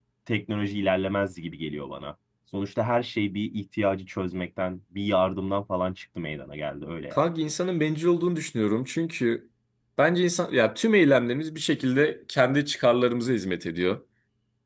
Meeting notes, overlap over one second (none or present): none